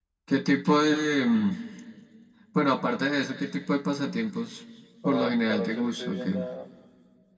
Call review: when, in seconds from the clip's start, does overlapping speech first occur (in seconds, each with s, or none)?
5.0 s